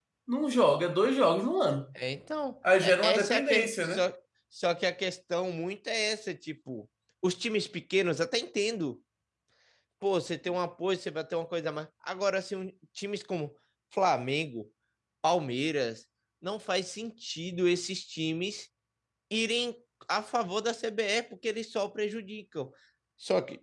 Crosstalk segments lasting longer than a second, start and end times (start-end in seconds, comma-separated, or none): 2.8-4.1